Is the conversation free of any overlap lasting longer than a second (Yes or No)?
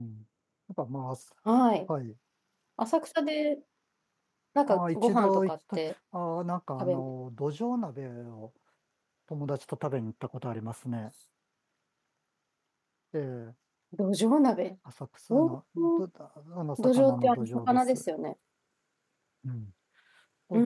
No